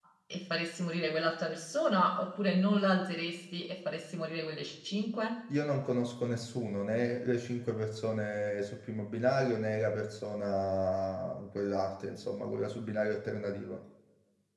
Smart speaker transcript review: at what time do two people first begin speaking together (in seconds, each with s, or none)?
none